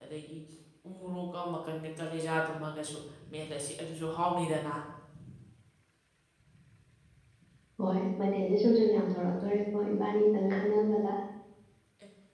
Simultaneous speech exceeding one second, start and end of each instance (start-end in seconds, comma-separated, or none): none